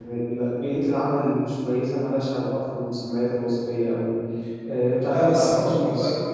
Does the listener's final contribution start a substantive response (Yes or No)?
Yes